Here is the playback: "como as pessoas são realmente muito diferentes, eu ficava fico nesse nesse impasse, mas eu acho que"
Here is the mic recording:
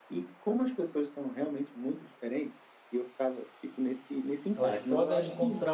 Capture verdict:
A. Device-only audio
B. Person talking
B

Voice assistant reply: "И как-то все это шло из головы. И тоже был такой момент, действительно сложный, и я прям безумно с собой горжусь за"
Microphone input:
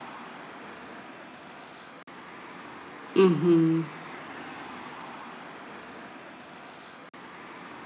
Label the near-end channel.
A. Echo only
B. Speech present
B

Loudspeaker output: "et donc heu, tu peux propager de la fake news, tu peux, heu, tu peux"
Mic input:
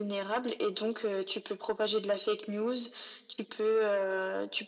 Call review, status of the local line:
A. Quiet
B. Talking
A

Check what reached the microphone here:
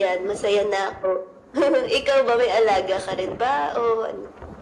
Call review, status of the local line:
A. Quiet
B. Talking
A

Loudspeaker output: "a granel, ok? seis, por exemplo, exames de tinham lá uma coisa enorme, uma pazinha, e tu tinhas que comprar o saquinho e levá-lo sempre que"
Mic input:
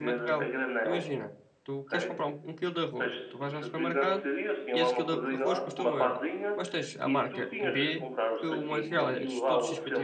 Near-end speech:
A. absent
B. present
B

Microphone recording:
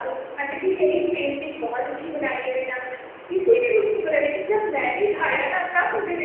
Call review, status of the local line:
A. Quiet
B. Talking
A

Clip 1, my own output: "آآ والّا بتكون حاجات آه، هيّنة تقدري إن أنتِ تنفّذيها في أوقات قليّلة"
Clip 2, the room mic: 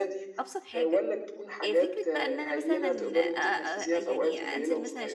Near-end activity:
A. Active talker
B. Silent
A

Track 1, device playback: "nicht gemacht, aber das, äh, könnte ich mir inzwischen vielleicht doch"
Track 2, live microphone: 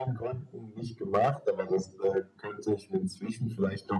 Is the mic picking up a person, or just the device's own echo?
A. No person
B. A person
A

